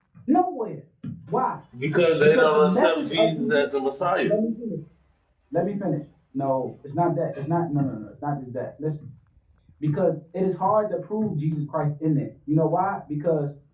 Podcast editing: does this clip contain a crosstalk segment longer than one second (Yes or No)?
Yes